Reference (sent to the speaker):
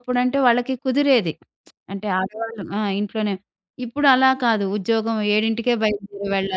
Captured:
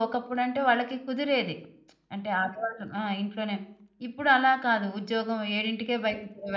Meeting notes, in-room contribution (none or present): none